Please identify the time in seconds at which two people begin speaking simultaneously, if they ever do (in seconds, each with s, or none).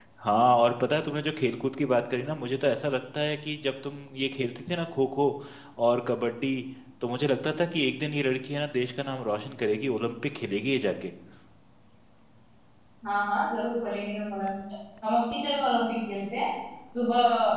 none